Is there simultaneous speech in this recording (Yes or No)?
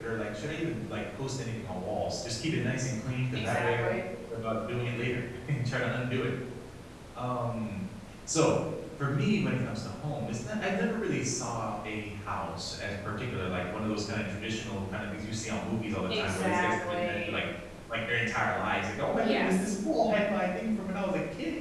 Yes